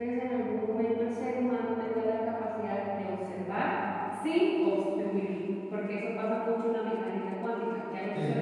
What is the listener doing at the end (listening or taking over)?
taking over